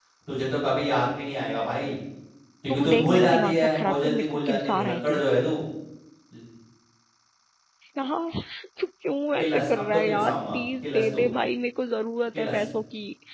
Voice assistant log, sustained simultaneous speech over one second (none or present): present